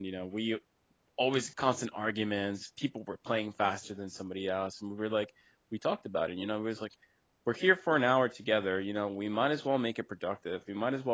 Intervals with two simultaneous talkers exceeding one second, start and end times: none

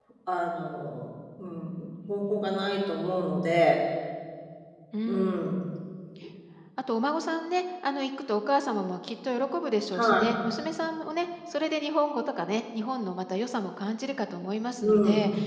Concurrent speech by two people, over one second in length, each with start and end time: none

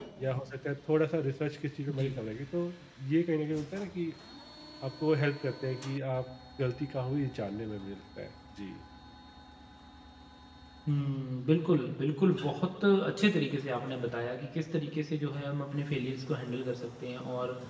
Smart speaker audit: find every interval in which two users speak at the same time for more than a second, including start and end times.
none

